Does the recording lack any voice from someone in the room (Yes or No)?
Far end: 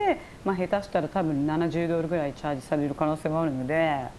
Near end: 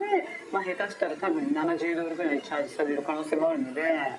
Yes